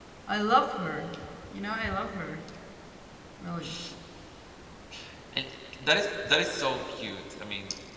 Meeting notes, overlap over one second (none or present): none